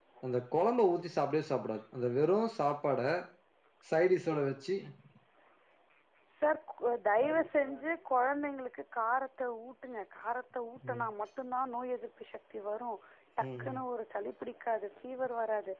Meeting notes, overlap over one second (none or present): none